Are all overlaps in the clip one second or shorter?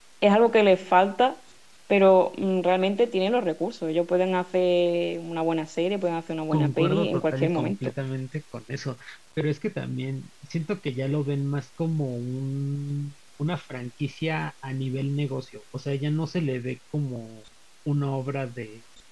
No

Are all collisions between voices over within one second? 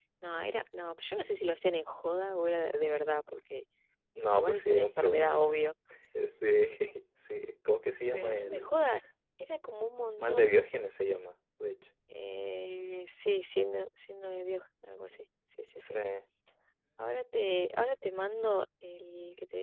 No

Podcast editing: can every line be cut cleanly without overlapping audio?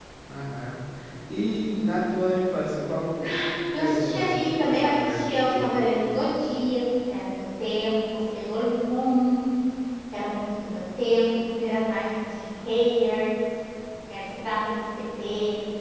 No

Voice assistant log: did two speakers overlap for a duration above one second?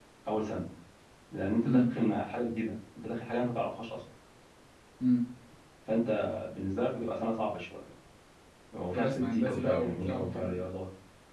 Yes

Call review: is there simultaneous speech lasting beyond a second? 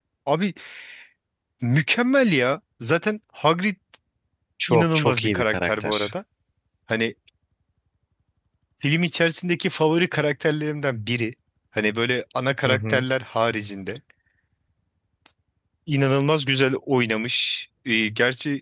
Yes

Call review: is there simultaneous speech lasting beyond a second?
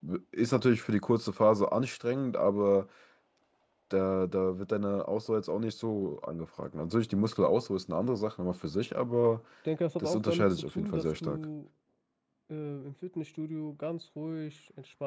Yes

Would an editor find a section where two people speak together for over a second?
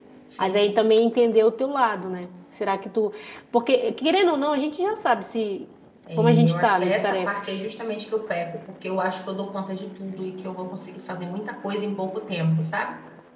Yes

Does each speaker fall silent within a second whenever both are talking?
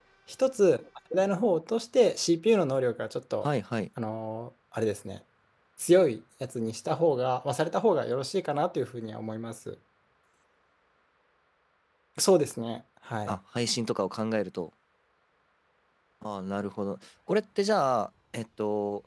Yes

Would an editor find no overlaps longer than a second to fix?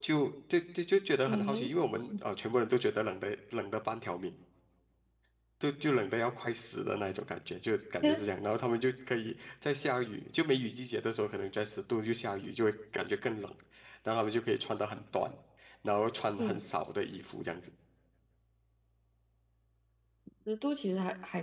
Yes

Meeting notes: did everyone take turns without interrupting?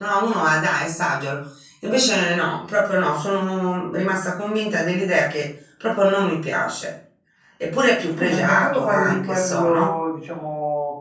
No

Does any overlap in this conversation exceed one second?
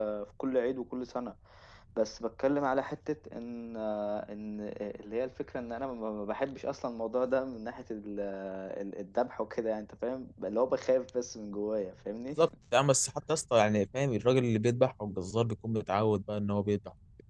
No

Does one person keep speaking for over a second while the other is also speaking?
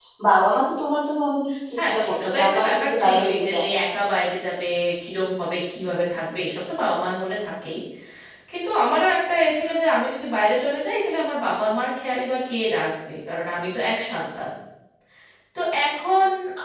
Yes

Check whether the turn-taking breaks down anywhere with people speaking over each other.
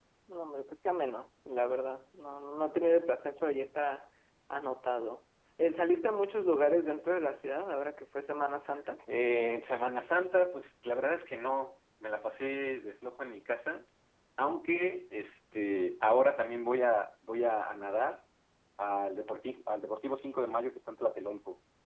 No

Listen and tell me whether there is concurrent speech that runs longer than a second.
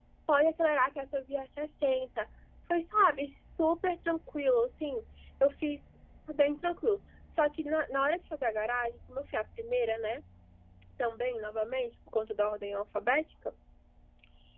No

